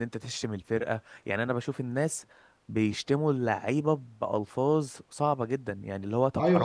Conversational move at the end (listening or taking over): taking over